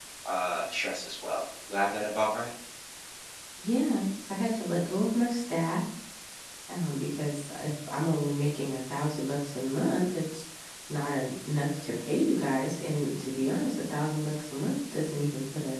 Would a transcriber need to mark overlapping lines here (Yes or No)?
No